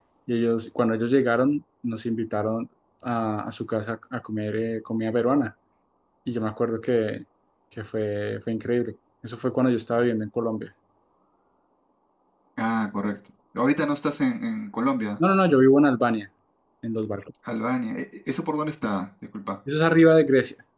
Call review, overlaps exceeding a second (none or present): none